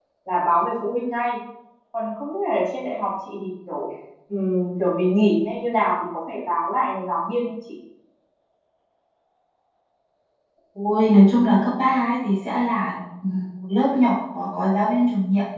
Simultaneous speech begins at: none

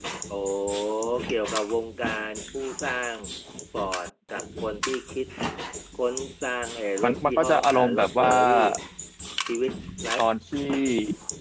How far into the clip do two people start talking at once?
7 s

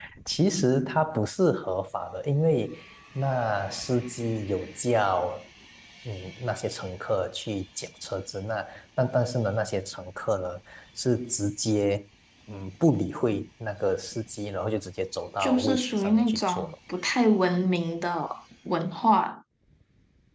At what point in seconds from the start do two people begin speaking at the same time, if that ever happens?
15 s

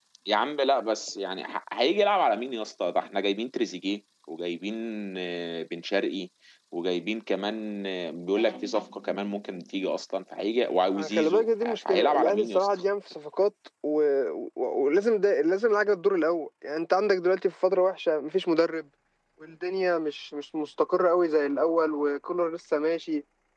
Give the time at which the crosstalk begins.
11 s

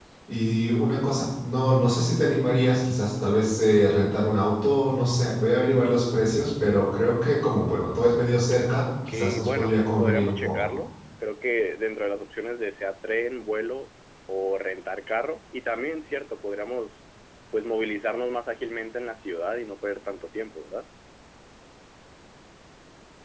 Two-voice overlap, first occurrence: 9 s

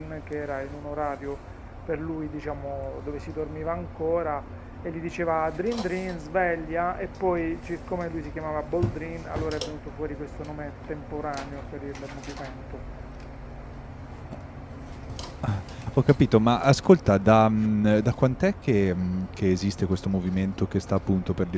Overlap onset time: none

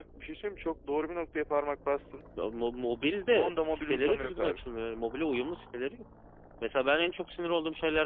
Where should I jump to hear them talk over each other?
3 s

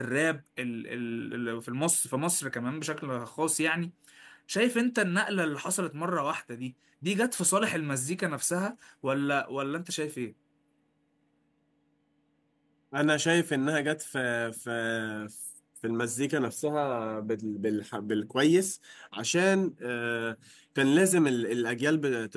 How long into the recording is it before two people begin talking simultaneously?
none

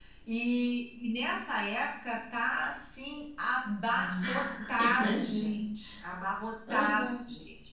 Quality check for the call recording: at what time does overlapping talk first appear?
4 s

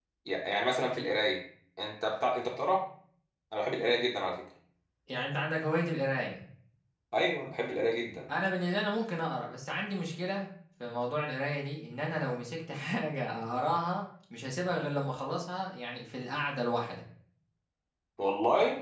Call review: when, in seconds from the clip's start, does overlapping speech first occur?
none

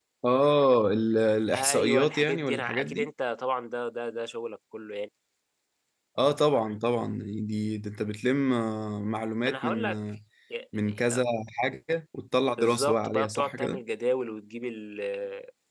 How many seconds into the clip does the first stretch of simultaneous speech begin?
2 s

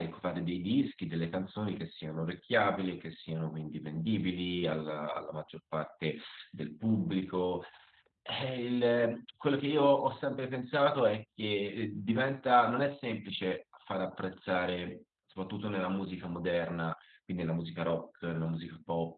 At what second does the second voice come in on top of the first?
none

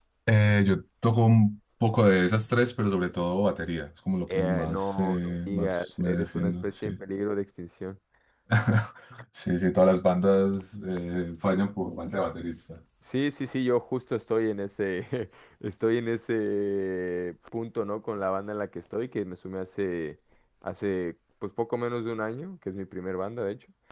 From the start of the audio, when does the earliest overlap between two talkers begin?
4 s

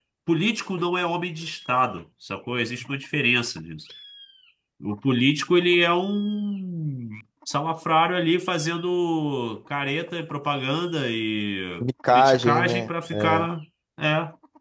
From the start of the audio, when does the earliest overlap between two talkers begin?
12 s

